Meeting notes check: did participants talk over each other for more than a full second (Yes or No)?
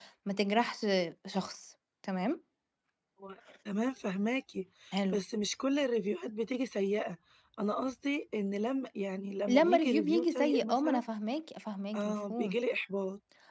Yes